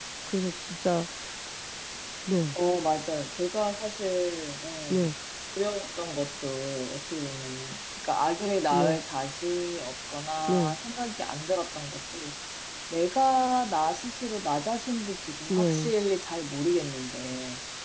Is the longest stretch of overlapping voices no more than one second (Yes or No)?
Yes